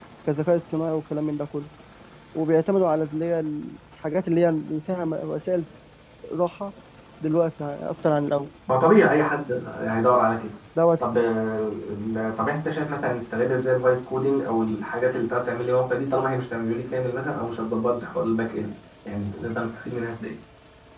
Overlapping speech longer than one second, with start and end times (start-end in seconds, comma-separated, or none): none